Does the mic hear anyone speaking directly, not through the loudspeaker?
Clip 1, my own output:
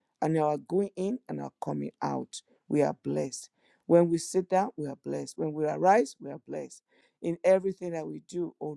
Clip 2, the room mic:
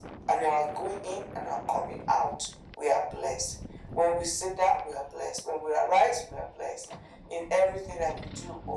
No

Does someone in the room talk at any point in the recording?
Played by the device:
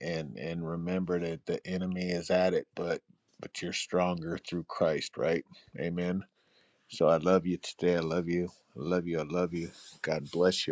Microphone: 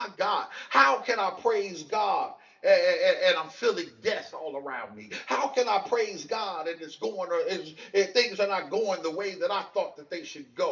Yes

